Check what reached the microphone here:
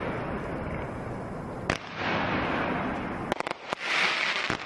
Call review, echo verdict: none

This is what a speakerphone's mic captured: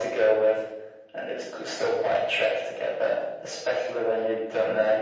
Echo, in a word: present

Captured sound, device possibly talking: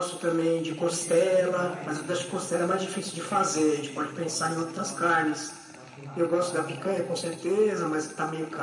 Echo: present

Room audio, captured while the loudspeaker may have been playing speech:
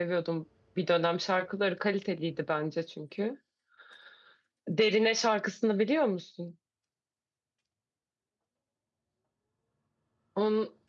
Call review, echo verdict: none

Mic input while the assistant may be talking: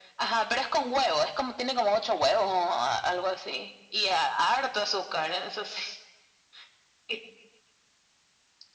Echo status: present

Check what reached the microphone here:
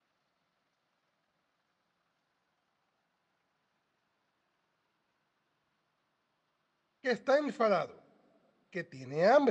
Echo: none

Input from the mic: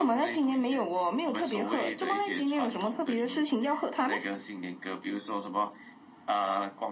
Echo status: present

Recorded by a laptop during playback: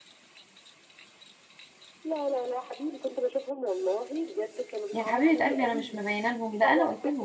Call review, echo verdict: present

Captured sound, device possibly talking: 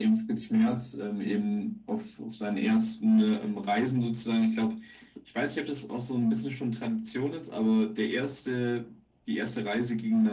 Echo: present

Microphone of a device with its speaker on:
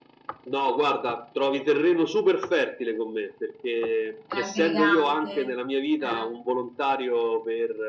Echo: present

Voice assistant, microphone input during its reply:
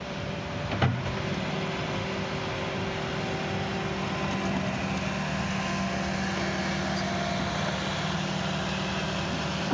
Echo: none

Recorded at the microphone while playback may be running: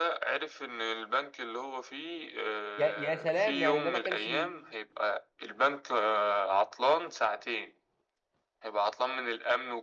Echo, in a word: present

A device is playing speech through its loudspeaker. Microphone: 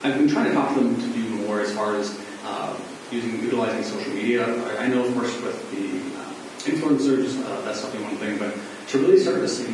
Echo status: none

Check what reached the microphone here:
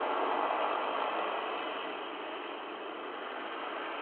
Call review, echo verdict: none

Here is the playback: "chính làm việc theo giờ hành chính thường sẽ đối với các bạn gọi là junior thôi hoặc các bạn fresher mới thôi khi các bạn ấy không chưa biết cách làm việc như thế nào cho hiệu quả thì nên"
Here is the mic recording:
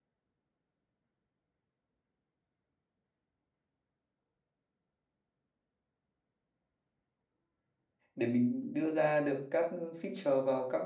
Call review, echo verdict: none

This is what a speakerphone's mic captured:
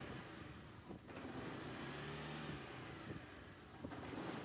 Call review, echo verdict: none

